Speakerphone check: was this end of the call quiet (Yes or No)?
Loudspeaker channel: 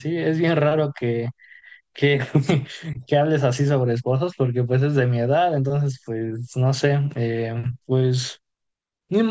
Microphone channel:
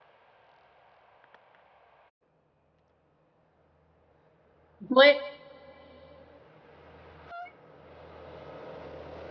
No